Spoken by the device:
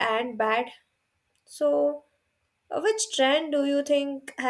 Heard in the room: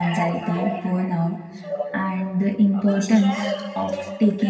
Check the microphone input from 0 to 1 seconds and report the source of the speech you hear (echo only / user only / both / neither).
both